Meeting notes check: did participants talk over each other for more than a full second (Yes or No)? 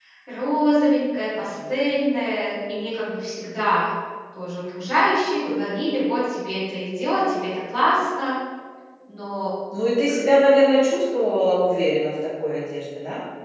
No